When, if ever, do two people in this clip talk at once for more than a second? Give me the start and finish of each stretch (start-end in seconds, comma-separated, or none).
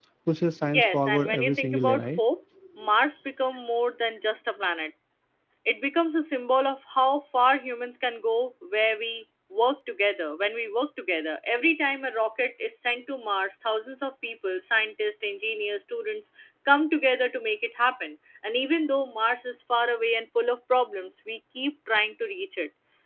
0.6-2.2